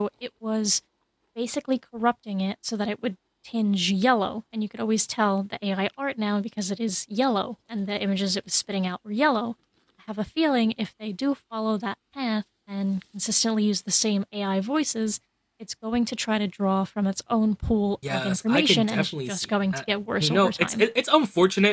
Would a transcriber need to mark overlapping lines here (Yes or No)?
Yes